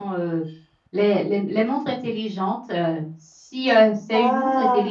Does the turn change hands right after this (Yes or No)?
No